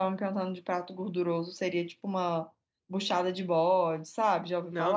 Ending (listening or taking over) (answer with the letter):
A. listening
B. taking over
B